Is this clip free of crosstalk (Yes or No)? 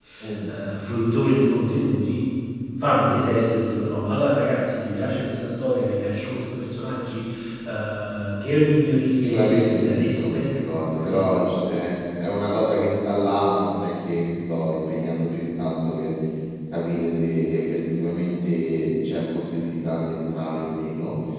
No